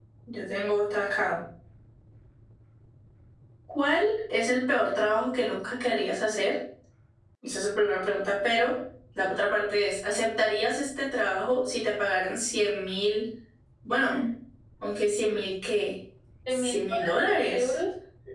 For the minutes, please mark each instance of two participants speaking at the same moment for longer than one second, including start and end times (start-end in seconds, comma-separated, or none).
16.5-17.7